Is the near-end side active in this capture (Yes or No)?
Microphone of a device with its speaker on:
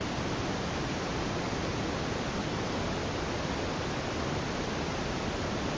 No